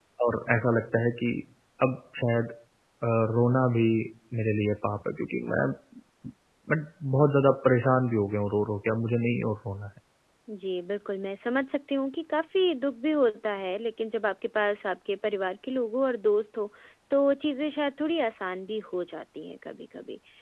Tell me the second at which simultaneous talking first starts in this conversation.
none

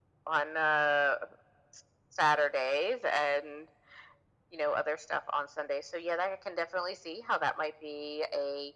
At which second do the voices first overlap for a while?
none

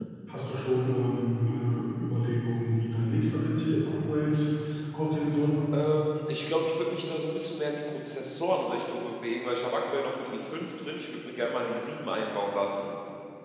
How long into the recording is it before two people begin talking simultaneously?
none

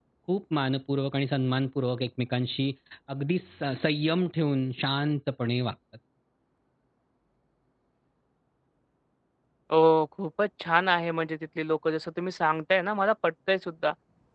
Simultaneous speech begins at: none

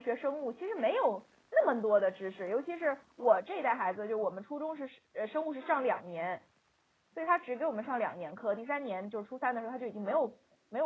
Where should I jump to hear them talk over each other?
none

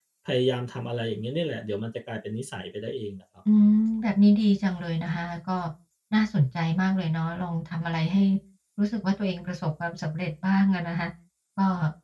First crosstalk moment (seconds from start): none

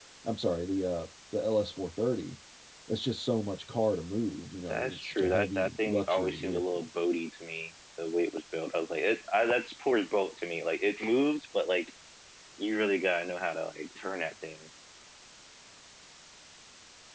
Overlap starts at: 4.7 s

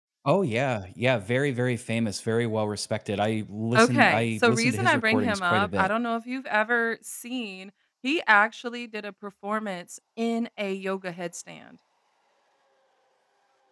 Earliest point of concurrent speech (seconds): 3.7 s

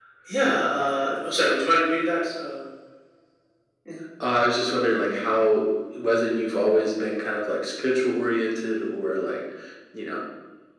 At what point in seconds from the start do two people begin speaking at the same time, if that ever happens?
none

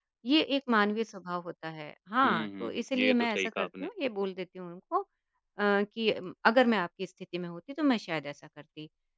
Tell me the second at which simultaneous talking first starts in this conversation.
2.2 s

